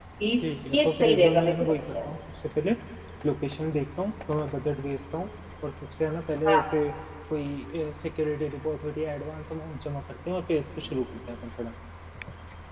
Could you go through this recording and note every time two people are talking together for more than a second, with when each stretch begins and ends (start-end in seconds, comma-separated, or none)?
0.8-2.1